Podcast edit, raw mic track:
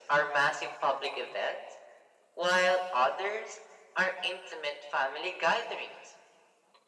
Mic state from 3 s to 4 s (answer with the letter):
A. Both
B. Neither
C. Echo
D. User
C